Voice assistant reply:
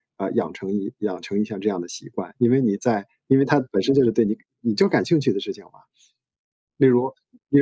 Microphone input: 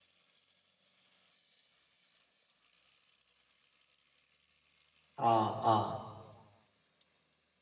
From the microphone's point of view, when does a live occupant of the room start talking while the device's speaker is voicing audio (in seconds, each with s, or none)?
5.2 s